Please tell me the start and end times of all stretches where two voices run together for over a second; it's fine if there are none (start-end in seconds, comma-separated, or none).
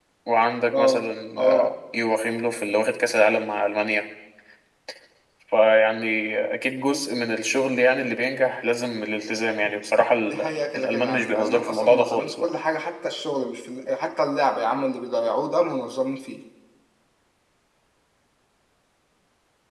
10.8-12.5